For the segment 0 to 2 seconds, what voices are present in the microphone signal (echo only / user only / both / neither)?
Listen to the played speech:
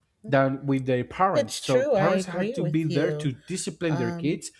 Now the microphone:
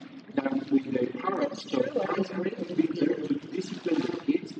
echo only